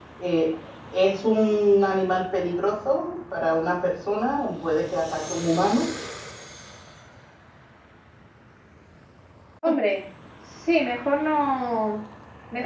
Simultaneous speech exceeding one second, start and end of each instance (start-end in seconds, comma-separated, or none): none